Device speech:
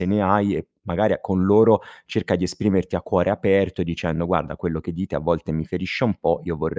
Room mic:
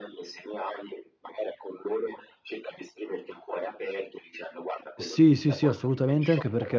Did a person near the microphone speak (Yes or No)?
Yes